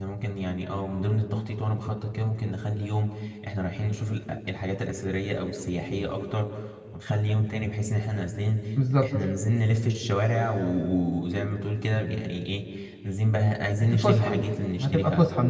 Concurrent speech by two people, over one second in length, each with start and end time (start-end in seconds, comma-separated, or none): none